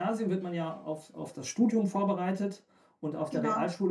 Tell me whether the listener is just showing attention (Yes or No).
Yes